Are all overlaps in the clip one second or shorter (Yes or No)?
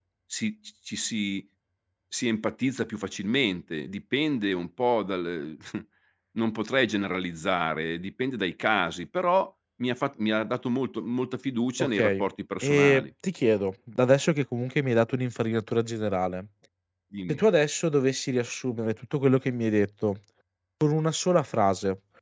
Yes